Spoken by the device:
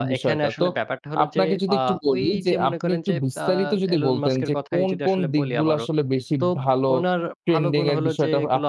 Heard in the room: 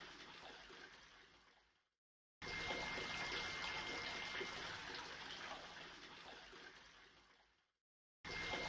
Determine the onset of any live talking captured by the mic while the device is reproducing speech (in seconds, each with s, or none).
none